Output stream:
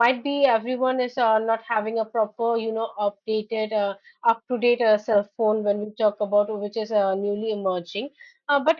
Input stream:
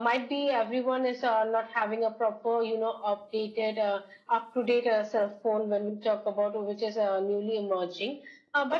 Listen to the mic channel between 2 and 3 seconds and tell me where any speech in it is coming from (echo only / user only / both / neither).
echo only